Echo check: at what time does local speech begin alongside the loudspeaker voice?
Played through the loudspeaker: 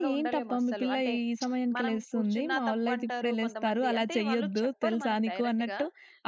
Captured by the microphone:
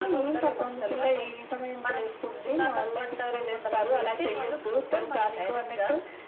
none

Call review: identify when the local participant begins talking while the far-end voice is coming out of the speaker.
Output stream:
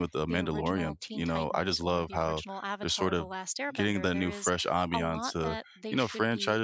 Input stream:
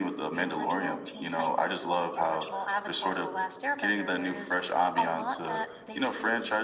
none

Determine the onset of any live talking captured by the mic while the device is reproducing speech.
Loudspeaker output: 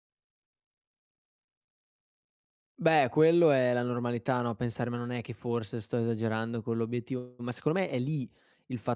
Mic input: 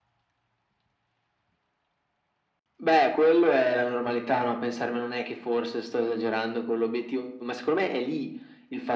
none

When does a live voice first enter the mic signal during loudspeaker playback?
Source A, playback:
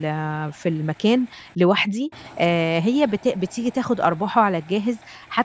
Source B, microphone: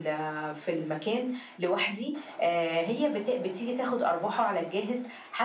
none

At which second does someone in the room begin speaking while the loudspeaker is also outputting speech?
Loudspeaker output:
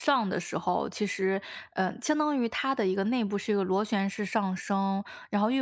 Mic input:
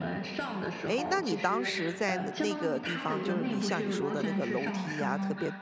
1 s

